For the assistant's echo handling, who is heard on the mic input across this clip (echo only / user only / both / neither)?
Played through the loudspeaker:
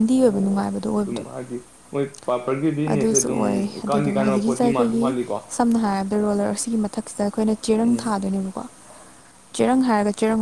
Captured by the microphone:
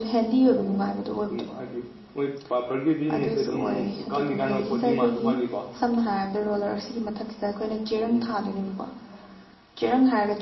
echo only